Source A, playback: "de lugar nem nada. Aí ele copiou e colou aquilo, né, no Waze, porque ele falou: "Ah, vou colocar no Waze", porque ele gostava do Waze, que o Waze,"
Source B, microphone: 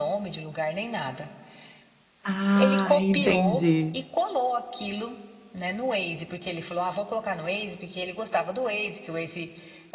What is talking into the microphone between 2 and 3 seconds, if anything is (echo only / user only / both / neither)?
both